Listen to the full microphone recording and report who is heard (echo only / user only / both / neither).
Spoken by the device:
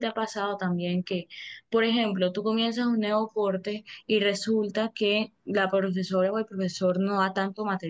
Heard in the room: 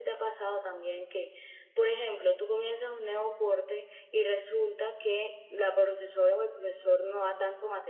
echo only